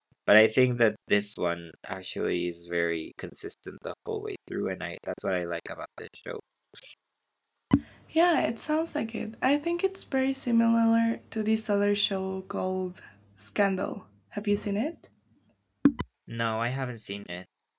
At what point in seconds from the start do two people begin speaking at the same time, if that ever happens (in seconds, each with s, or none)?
none